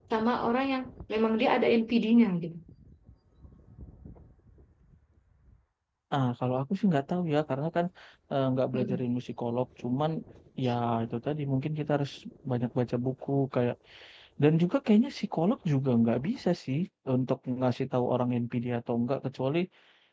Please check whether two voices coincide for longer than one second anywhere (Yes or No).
No